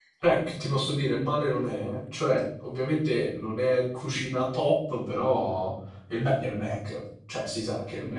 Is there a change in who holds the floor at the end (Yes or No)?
Yes